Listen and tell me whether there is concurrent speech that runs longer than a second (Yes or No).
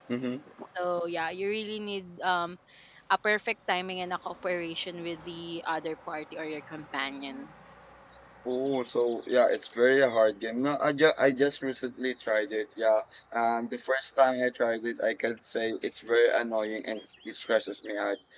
No